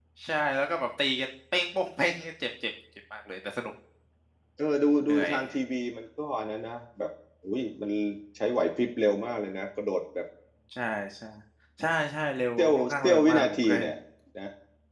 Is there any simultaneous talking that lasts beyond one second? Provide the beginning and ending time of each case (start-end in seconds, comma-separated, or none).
12.6-13.9